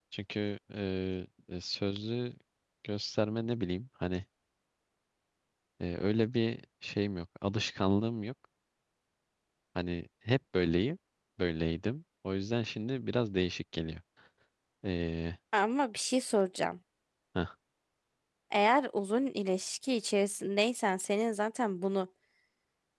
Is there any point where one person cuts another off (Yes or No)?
No